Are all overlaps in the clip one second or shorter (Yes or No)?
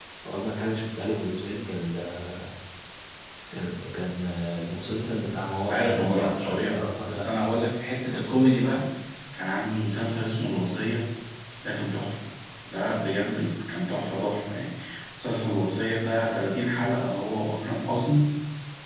No